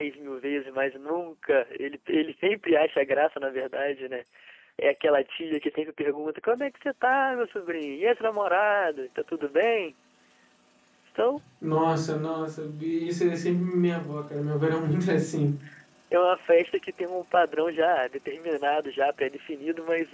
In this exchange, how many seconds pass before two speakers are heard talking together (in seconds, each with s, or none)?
none